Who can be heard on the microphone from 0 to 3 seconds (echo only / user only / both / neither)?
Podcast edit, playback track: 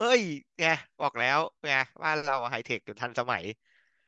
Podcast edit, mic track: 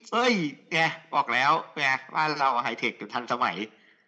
echo only